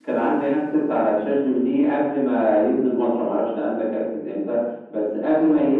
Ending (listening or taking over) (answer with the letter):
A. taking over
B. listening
B